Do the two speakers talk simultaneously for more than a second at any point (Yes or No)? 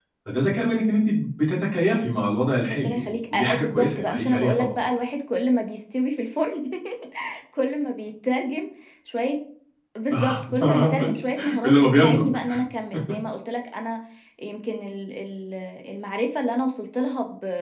Yes